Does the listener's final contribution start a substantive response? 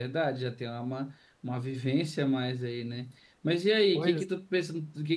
No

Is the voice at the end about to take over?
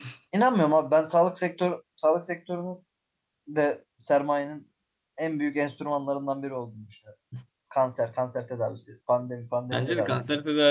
Yes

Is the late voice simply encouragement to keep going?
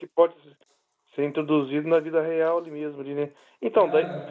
Yes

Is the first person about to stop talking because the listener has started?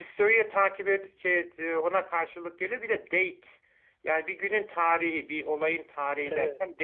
No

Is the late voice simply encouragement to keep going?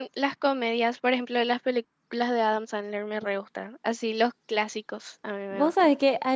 No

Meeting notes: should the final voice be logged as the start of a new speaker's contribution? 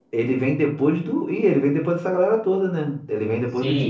Yes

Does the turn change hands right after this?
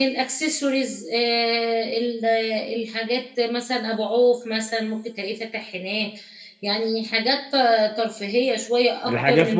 Yes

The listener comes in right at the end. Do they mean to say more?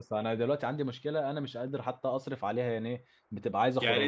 No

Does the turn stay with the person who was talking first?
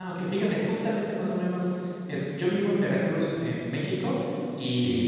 Yes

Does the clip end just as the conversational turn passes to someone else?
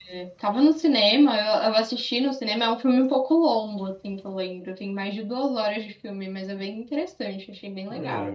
Yes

